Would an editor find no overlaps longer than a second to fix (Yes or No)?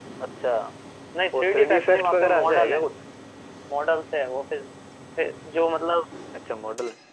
No